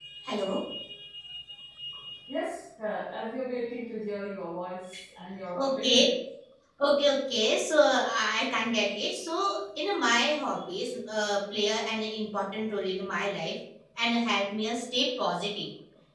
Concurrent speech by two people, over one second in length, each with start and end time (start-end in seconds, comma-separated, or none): none